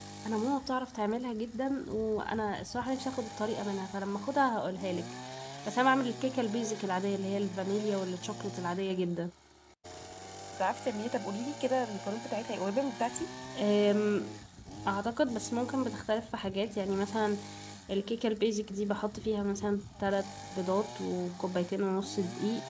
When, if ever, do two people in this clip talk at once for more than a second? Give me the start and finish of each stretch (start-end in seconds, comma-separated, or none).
none